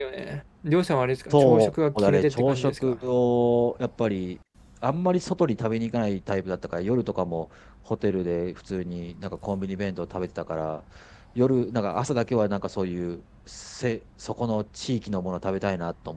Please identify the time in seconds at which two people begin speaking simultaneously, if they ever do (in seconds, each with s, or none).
1.3 s